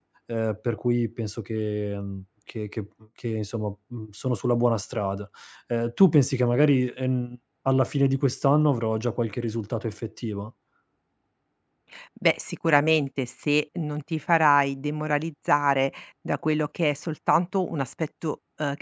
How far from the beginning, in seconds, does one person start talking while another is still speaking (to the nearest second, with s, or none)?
none